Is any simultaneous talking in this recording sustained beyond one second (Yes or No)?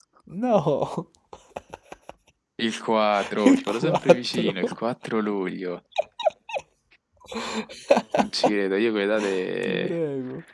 Yes